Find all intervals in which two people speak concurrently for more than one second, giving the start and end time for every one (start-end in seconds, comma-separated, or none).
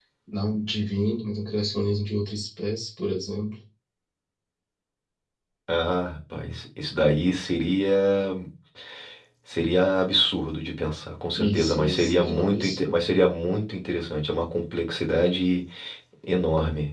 11.4-13.0